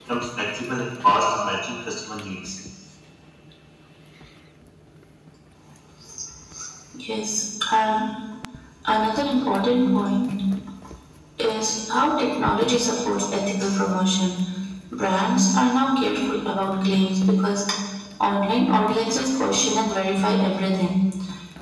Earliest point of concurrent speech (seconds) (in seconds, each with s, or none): none